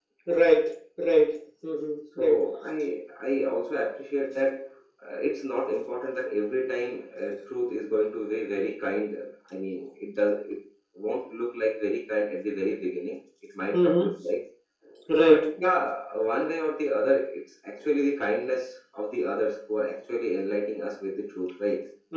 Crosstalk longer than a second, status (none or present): none